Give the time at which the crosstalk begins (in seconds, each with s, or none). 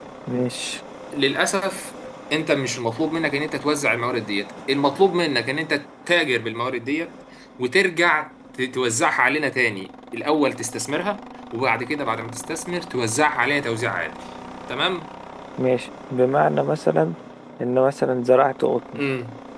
none